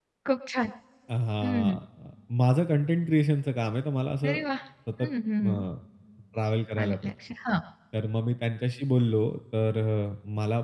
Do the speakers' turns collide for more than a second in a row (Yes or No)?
No